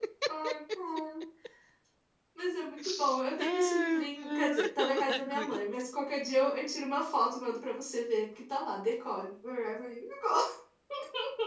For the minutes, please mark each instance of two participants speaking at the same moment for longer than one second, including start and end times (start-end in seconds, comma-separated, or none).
3.4-5.6